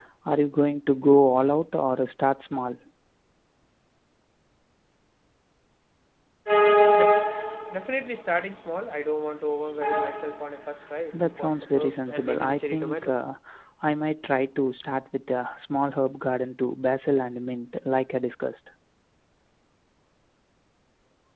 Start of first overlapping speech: 11.1 s

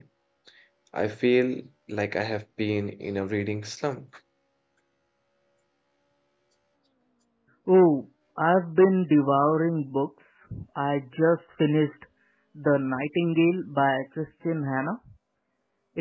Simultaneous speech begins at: none

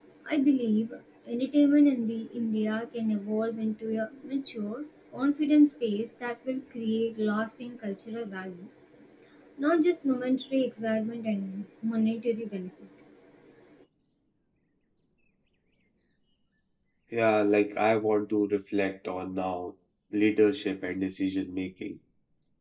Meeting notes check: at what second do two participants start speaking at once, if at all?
none

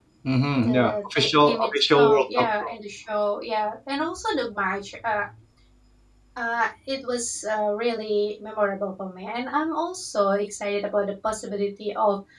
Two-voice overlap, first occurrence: 0.6 s

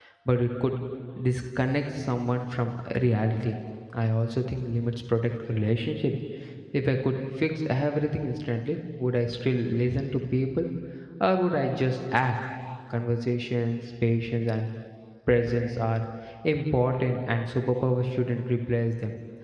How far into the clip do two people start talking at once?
none

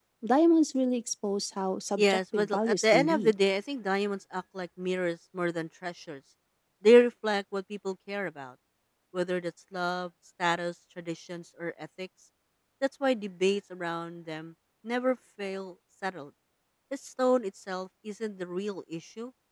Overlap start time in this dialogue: 2.0 s

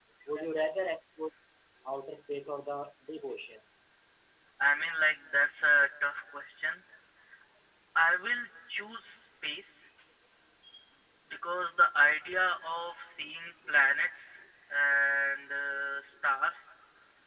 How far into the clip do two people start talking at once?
none

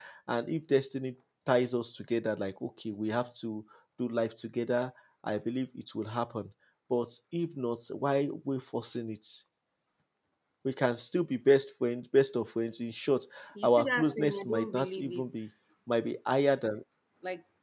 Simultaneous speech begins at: 13.6 s

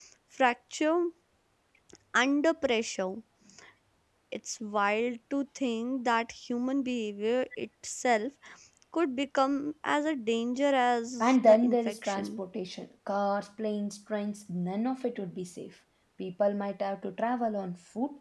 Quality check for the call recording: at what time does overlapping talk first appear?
11.2 s

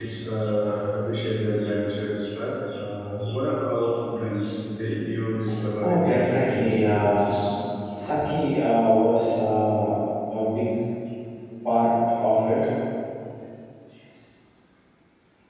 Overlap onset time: 5.8 s

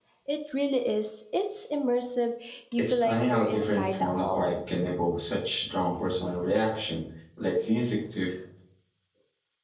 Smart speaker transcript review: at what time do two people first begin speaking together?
2.8 s

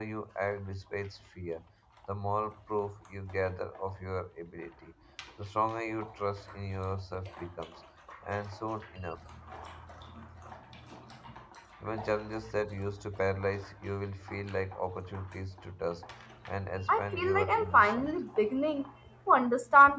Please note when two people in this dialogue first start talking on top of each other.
16.9 s

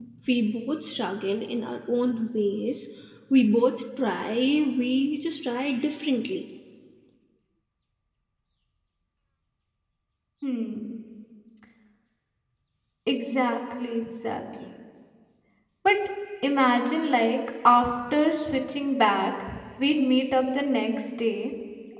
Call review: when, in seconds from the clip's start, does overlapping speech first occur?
none

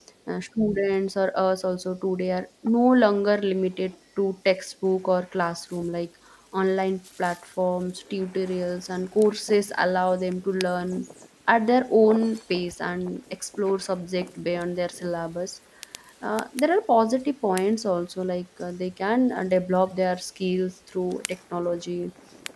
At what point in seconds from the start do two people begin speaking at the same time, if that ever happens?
none

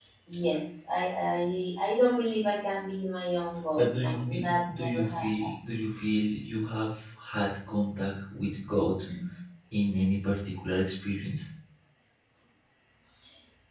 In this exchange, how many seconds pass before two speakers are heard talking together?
3.8 s

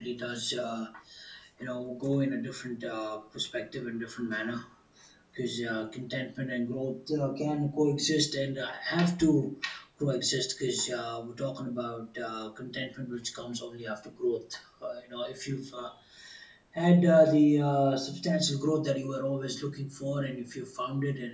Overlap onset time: none

